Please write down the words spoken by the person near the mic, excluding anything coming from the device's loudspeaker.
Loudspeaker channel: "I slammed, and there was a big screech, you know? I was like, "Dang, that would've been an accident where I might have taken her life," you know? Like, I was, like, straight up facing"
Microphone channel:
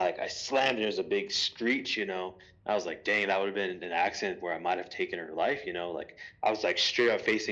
none

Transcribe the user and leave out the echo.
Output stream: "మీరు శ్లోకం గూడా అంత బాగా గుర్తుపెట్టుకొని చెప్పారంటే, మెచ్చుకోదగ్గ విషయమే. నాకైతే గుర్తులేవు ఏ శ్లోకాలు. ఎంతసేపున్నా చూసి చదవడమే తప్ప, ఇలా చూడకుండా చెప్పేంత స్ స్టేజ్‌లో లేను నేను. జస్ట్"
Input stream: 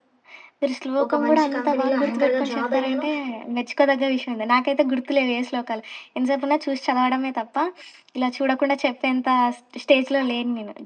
ఒక మంచి కంపెనీలో యాంకర్‌గా జాబ్ అయ్యాను.

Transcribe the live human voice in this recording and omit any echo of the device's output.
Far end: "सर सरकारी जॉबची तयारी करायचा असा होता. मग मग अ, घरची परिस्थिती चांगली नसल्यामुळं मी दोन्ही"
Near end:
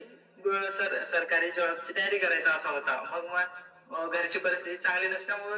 none

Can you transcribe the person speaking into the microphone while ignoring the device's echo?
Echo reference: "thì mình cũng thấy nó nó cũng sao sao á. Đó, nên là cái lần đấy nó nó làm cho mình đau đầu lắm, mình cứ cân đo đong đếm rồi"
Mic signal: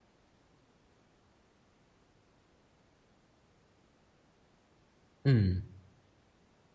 Ừm,

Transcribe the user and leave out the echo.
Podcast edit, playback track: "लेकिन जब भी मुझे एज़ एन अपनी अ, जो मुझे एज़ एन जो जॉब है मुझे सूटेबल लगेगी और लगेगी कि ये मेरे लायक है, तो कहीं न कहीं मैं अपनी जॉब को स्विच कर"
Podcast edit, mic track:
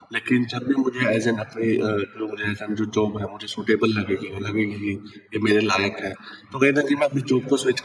none

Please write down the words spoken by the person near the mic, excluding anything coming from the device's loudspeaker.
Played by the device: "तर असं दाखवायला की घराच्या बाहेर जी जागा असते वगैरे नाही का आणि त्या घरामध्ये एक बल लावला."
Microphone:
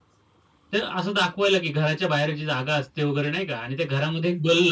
none

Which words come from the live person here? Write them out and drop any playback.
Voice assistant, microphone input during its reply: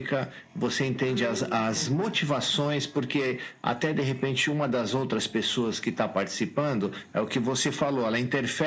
Hum, boa.

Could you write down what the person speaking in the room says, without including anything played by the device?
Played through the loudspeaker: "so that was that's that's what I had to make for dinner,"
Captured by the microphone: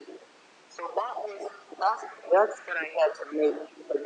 none

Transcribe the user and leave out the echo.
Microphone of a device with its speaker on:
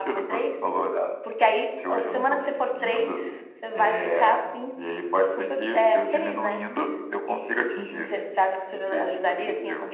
none

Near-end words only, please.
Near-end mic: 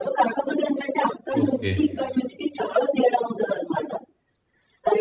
ఓకే.

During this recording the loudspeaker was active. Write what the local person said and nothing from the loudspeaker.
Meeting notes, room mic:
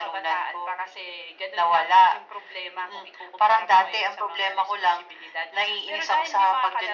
none

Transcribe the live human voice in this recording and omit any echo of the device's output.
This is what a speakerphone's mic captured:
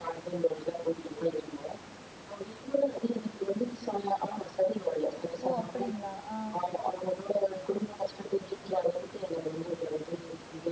ஓ! அப்படிங்களா? ஆ.

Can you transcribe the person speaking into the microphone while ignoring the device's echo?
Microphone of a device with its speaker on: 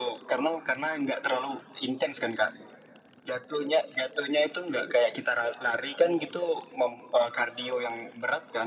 none

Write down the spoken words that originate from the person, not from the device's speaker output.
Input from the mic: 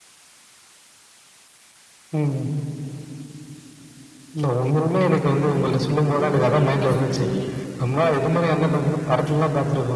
ஏதேதோ பிரெயின் வாஷ் பண்ணி,

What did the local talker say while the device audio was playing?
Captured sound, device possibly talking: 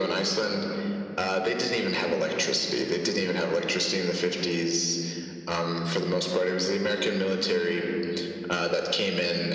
none

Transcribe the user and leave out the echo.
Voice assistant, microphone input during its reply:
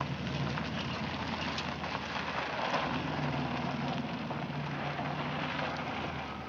none

